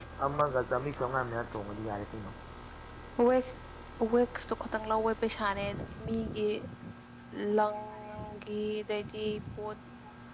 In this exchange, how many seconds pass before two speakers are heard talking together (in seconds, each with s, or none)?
none